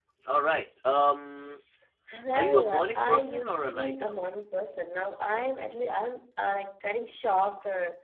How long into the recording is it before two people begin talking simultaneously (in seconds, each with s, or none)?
2.3 s